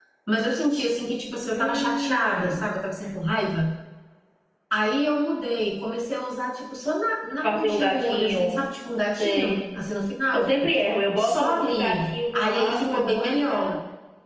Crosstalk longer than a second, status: present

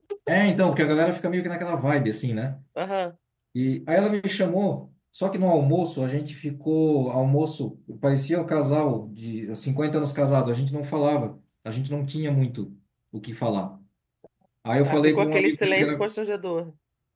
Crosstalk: present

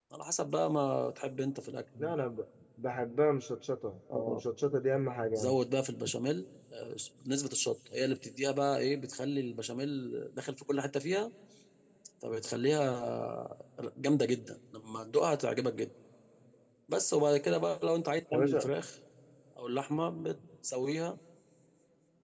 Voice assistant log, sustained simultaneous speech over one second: none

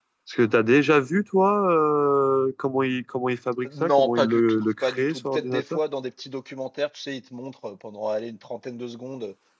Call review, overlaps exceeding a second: present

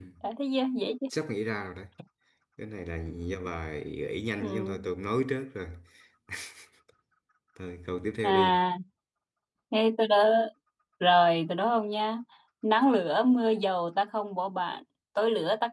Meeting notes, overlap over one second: none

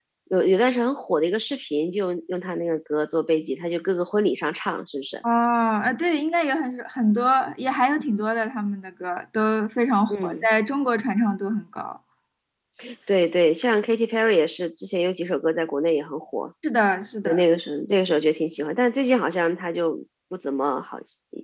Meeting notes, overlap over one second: none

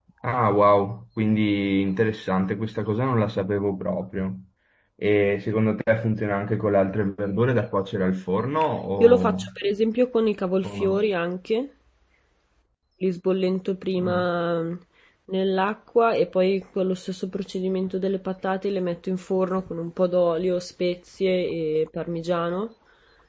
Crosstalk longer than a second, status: none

